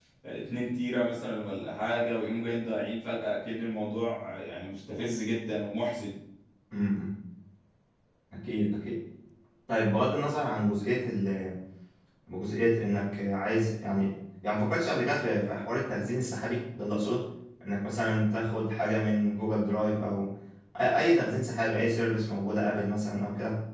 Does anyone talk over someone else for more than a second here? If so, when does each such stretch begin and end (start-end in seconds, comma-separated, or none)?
none